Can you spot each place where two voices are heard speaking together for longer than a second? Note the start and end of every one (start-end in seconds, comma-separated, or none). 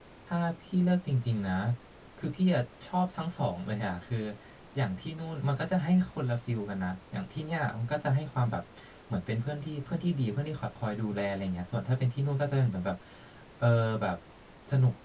none